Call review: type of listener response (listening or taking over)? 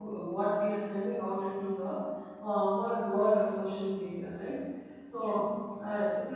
listening